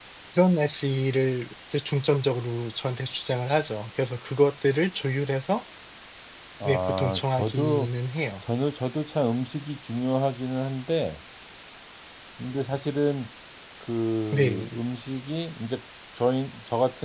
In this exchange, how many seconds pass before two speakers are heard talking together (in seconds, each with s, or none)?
6.7 s